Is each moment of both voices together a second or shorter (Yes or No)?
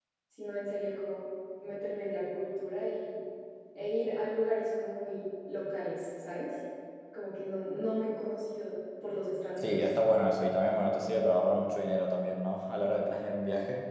Yes